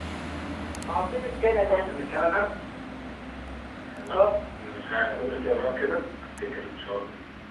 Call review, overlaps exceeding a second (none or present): none